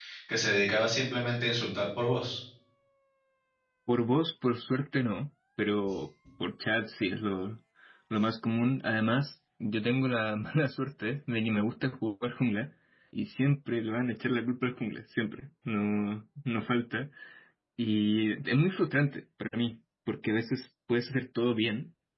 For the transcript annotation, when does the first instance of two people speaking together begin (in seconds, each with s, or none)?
none